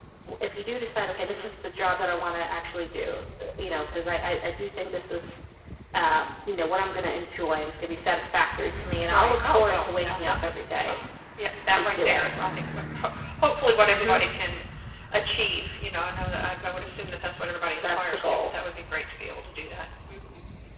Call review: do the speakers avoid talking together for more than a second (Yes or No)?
No